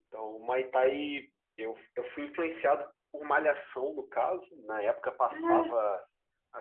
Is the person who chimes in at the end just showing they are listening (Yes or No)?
Yes